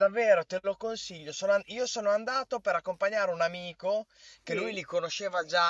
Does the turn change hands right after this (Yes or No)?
No